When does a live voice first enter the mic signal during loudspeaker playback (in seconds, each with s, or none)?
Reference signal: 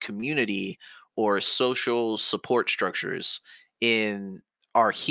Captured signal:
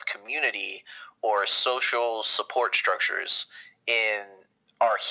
none